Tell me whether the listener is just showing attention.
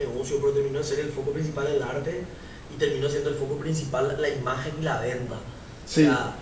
Yes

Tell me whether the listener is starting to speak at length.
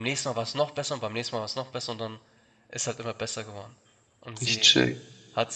No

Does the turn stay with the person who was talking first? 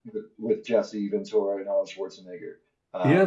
No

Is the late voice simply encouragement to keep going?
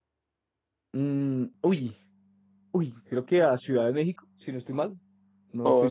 No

